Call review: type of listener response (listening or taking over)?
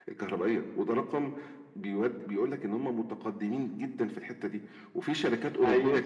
listening